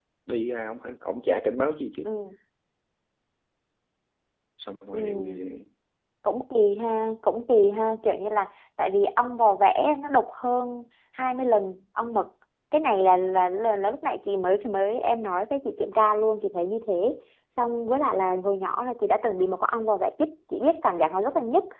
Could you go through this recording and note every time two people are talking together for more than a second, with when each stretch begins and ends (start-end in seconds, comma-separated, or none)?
none